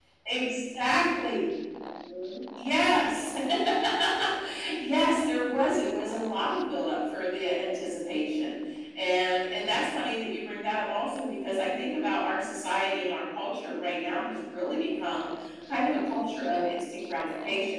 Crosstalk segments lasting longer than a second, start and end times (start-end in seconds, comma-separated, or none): none